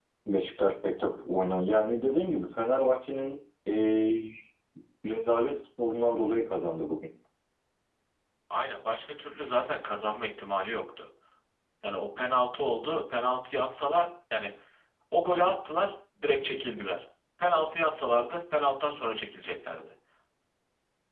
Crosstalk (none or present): none